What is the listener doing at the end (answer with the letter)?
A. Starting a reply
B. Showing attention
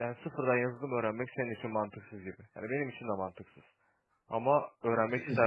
B